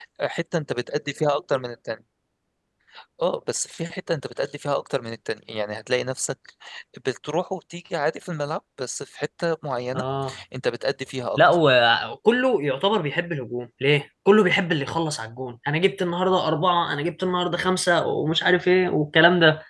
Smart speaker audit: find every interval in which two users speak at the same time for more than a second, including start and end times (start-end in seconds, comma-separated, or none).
none